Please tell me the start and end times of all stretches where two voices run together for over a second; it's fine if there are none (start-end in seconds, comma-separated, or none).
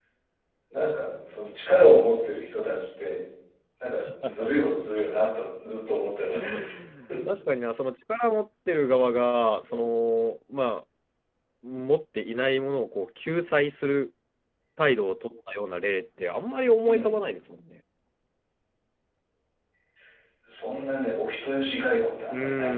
none